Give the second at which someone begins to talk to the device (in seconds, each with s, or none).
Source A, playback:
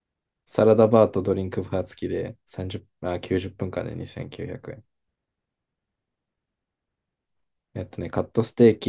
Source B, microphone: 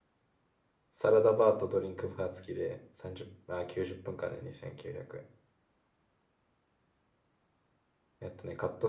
none